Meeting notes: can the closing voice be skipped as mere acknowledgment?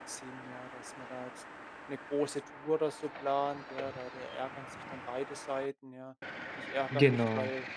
Yes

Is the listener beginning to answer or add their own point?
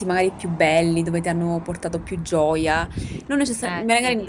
No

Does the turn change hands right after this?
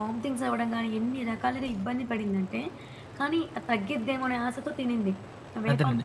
Yes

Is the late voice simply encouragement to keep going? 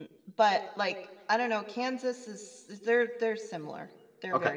No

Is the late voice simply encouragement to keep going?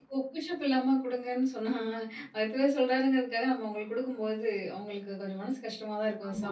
No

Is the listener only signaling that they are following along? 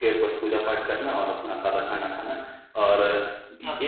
Yes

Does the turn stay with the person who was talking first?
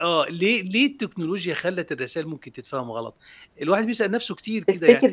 Yes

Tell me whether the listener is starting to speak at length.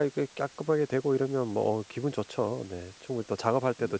No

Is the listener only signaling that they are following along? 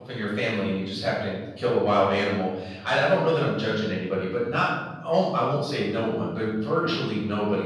Yes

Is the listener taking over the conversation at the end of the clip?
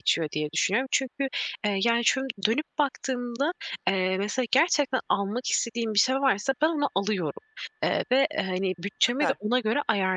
No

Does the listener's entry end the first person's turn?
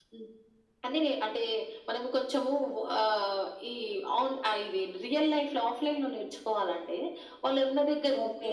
No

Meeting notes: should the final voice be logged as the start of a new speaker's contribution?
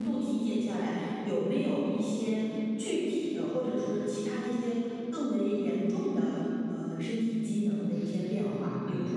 No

